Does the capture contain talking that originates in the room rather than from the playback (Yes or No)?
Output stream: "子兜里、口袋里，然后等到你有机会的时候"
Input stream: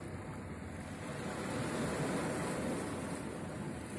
No